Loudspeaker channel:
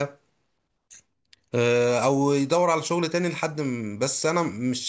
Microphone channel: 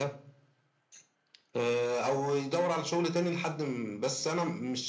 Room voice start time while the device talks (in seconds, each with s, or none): none